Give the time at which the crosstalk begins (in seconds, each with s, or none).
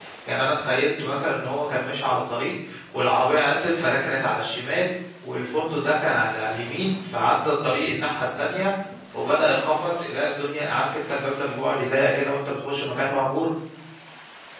none